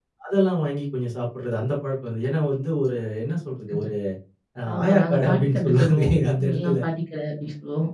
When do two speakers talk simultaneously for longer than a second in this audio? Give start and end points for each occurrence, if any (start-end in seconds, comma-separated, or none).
4.7-6.8